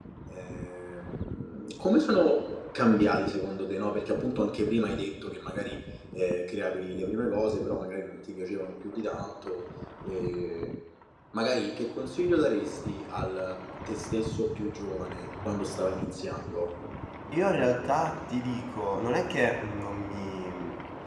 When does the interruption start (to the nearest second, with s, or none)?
none